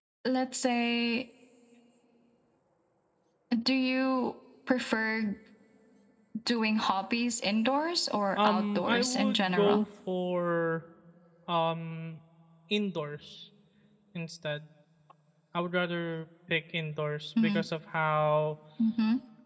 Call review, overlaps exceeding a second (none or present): present